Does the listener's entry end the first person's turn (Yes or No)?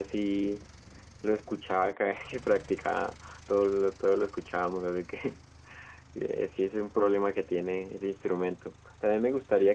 No